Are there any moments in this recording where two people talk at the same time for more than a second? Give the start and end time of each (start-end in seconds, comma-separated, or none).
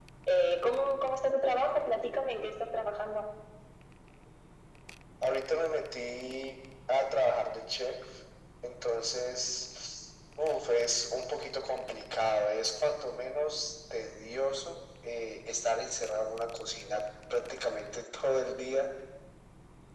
none